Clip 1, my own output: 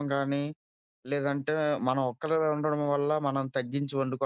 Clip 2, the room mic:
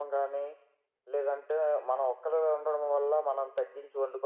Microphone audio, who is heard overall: both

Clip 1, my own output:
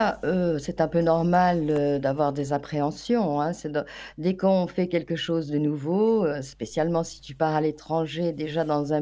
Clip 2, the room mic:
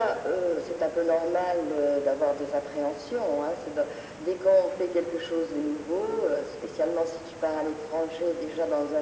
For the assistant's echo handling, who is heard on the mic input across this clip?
echo only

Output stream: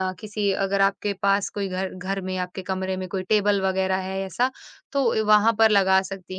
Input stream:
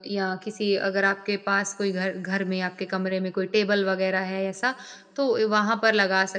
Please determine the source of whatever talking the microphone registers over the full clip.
echo only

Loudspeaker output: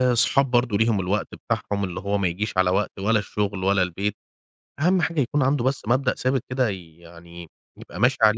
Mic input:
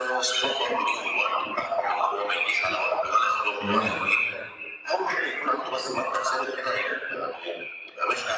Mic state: both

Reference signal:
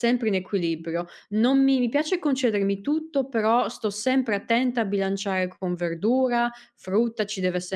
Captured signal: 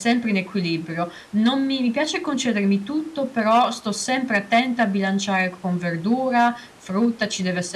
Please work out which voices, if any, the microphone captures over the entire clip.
echo only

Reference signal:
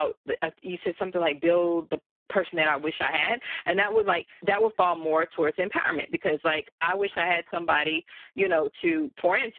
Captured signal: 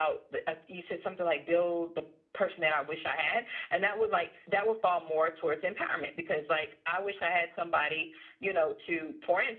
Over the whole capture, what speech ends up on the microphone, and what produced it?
echo only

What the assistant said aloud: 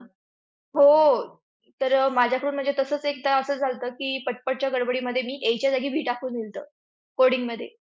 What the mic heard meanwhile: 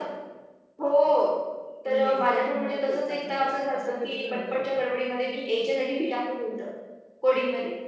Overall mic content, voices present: both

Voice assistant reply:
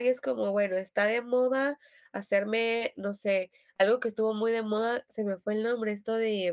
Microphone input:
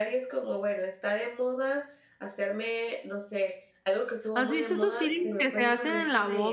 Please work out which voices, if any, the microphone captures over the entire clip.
both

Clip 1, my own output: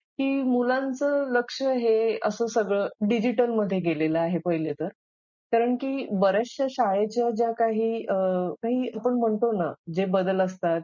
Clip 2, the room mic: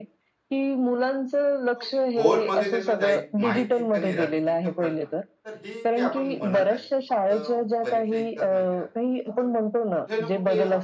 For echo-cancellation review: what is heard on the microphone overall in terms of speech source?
both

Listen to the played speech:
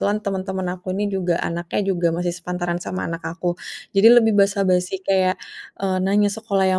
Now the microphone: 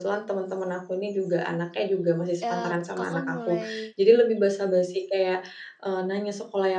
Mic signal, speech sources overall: both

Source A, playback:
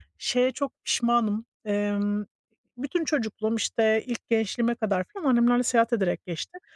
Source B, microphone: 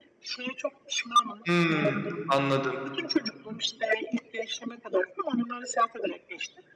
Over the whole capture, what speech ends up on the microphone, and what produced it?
both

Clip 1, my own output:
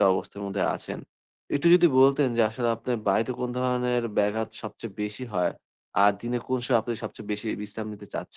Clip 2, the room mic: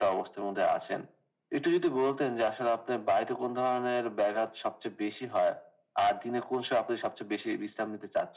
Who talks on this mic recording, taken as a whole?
echo only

